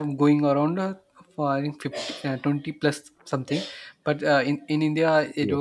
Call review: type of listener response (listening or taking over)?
listening